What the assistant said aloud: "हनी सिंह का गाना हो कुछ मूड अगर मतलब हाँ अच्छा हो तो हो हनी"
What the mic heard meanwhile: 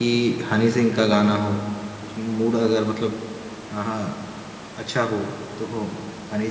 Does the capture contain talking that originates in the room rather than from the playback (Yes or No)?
No